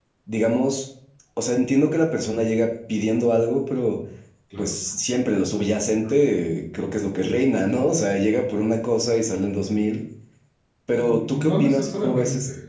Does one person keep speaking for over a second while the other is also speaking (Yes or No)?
Yes